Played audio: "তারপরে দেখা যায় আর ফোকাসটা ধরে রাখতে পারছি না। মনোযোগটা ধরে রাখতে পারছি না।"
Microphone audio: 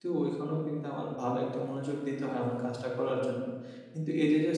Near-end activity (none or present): present